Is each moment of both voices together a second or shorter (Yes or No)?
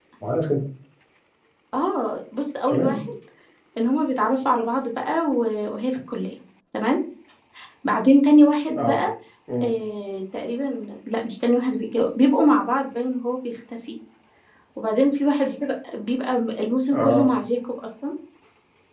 Yes